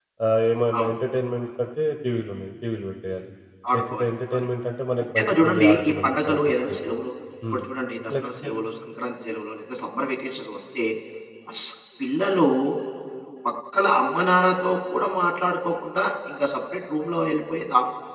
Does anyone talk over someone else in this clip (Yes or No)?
Yes